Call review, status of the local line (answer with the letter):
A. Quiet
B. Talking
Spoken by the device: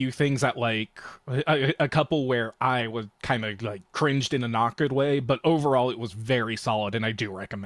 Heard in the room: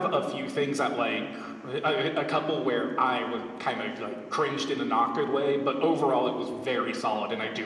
A